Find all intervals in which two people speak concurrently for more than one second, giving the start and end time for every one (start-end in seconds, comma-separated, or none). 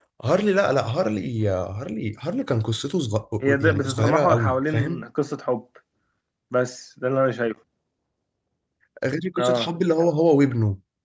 3.6-5.0